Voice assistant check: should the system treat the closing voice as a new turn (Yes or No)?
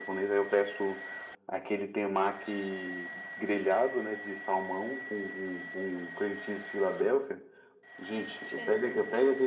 No